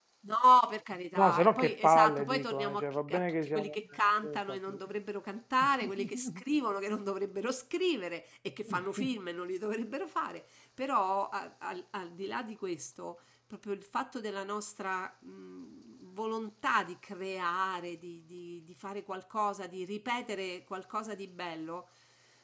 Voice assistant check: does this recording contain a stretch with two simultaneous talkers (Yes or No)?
Yes